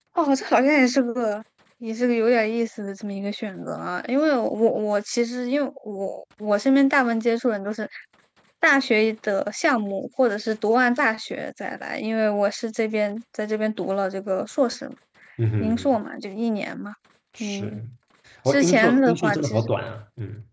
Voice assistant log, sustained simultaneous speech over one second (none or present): present